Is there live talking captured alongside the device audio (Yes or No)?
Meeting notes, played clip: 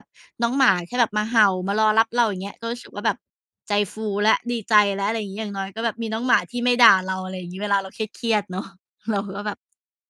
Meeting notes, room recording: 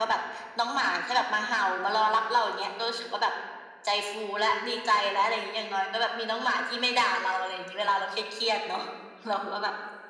No